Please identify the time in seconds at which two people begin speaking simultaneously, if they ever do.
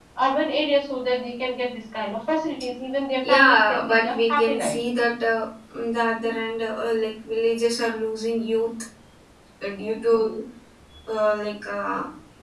3.2 s

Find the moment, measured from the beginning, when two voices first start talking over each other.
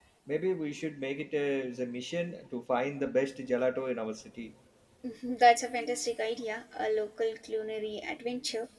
none

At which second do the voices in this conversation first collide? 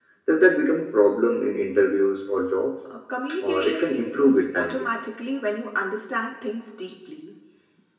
3.4 s

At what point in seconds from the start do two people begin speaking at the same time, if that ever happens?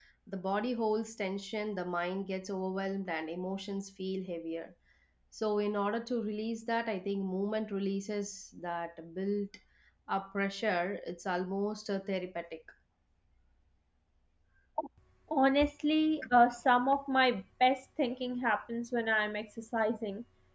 none

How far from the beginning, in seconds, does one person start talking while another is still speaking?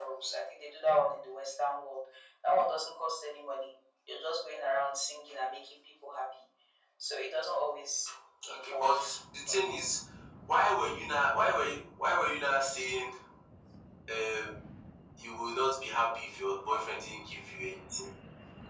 8.4 s

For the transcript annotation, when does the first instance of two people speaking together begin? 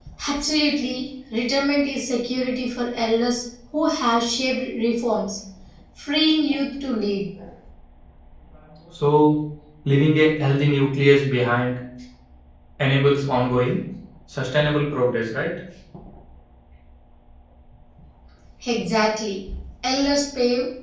none

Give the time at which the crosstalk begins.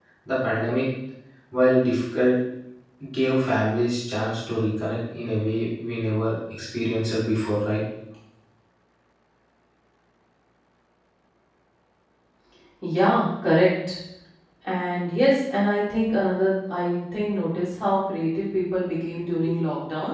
none

